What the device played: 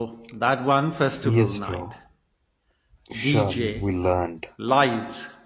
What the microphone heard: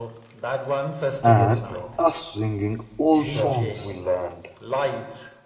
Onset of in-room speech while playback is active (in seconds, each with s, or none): 1.2 s